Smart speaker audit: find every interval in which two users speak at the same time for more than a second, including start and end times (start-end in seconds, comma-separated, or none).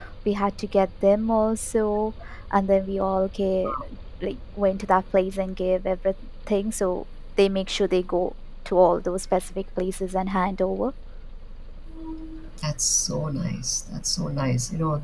none